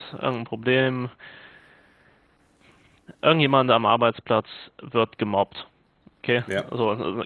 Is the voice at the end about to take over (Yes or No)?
No